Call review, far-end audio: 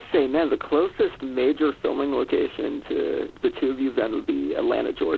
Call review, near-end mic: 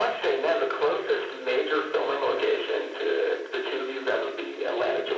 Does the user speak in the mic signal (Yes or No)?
No